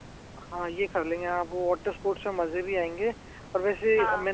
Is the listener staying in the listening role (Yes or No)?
Yes